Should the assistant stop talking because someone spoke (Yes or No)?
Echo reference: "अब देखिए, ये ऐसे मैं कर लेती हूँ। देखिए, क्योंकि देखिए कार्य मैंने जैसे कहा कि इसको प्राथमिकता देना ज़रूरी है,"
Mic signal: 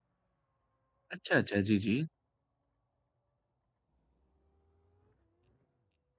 Yes